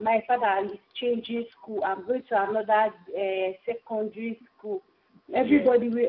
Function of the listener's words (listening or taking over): listening